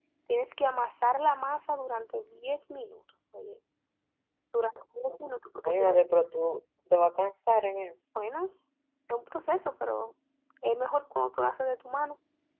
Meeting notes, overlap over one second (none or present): none